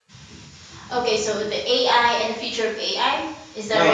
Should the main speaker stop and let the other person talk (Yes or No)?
Yes